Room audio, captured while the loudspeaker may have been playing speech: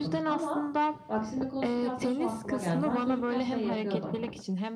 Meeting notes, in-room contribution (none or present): present